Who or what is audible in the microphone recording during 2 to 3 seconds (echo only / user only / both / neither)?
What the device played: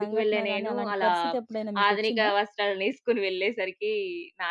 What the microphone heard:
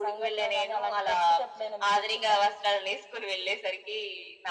echo only